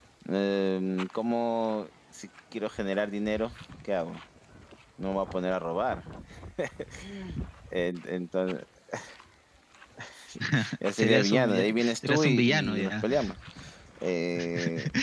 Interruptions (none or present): present